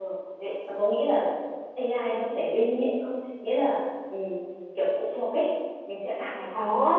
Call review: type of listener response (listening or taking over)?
taking over